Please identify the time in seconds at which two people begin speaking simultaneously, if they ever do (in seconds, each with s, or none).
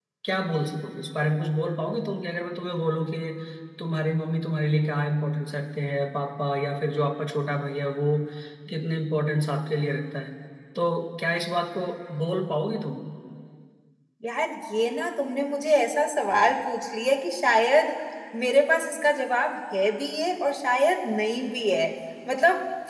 none